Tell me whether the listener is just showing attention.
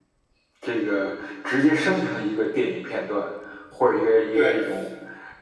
Yes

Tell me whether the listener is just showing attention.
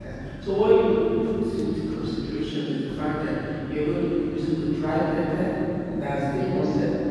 Yes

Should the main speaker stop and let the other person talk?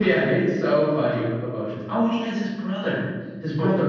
Yes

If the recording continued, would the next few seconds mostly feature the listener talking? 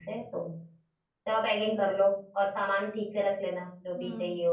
Yes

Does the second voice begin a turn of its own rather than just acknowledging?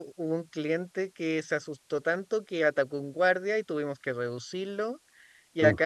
No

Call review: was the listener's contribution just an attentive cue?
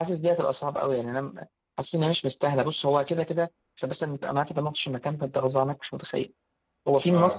Yes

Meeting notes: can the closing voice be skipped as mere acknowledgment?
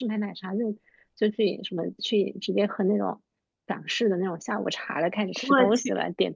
Yes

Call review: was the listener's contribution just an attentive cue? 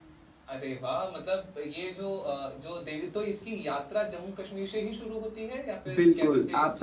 No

